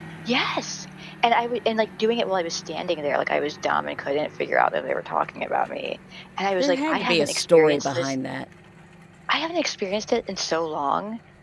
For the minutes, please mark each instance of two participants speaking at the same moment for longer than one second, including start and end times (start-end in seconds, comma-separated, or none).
6.6-8.1